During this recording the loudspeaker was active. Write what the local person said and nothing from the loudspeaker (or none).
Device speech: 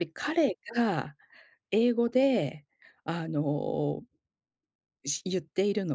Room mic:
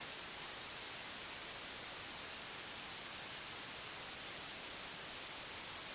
none